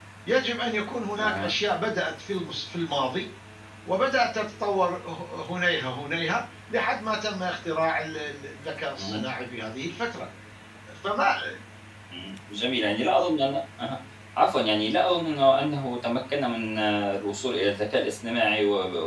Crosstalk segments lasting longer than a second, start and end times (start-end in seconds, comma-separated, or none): none